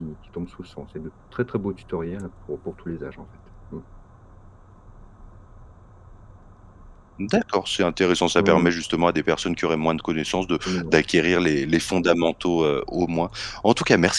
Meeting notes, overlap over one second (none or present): none